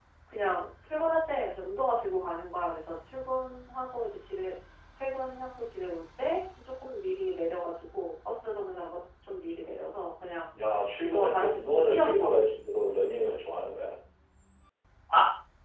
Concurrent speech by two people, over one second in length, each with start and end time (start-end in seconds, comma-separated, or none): 11.0-12.4